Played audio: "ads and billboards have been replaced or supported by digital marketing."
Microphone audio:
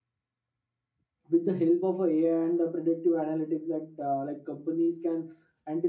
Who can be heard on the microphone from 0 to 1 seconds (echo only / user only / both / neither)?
neither